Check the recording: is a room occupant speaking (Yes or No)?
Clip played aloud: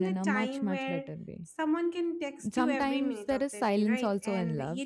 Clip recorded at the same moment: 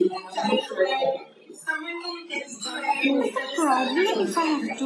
Yes